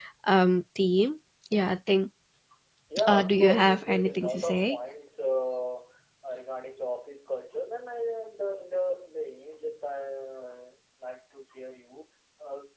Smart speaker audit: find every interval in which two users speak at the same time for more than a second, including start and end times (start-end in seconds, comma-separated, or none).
3.1-4.8